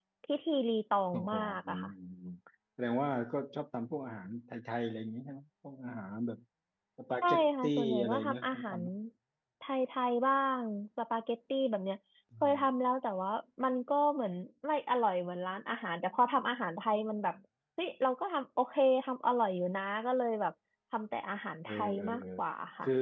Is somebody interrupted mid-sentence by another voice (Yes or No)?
Yes